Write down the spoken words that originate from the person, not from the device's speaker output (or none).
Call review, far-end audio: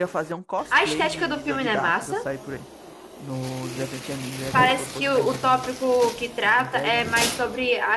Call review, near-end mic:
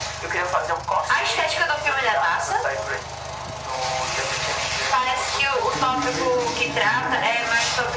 The Dreamers não. The Dreamers não.